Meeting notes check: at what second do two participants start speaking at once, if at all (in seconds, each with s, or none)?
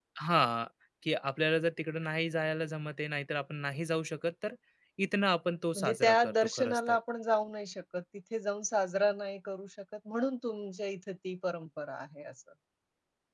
5.8 s